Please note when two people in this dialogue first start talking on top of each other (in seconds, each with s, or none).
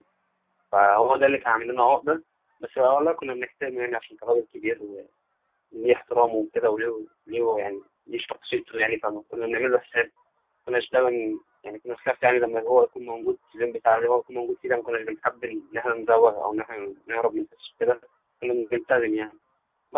none